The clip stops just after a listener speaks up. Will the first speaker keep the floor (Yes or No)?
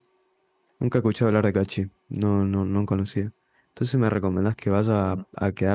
Yes